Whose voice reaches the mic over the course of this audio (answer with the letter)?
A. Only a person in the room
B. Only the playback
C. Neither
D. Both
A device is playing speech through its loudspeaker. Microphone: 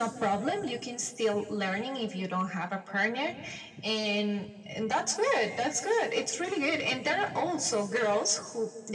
B